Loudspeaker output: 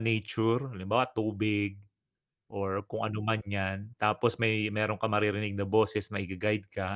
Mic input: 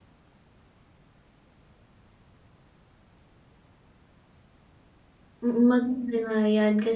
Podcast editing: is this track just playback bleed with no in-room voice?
No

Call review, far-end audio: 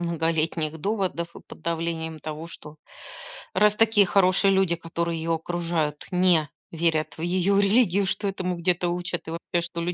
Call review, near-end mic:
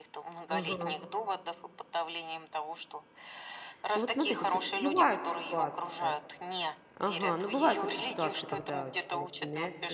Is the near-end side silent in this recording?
No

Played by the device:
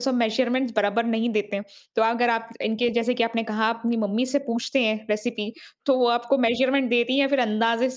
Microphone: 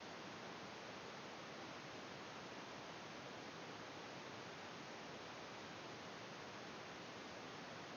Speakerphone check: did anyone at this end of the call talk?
No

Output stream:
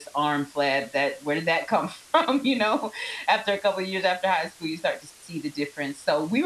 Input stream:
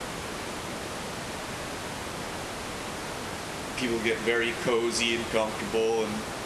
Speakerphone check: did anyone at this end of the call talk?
Yes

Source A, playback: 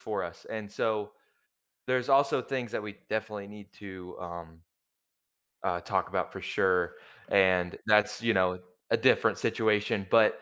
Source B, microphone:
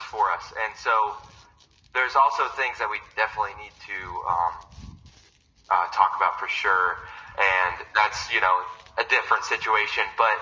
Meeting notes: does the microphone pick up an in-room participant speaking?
No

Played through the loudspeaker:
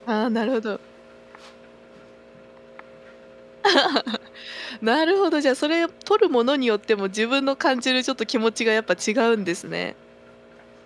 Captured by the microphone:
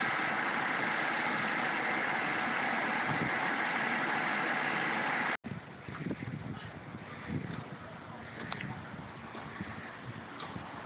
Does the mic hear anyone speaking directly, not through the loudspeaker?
No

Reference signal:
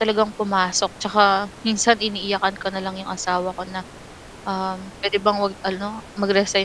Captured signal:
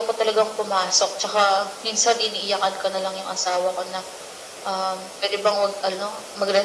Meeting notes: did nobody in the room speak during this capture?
Yes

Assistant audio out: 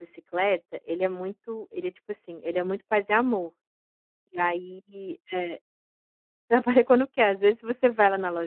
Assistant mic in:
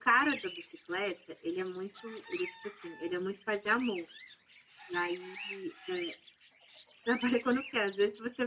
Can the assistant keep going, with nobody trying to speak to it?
Yes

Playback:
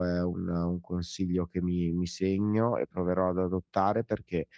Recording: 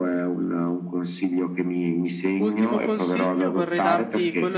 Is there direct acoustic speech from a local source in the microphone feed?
Yes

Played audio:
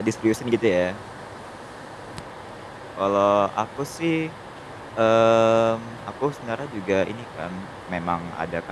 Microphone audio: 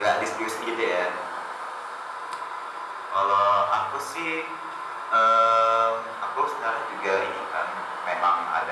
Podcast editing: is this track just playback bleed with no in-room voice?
Yes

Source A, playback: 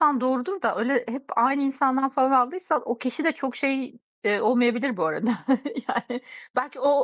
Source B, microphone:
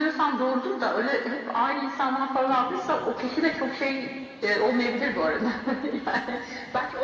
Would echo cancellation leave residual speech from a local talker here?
No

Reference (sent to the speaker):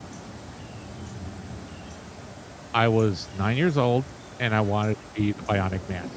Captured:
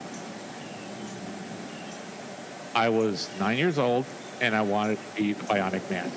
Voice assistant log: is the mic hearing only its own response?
Yes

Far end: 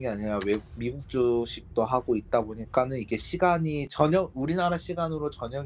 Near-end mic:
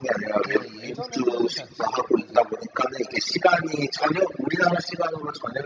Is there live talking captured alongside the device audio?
Yes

